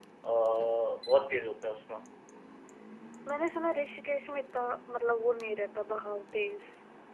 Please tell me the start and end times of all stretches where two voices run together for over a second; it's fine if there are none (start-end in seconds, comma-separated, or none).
none